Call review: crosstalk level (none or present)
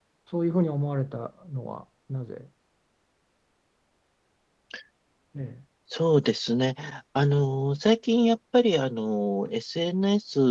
none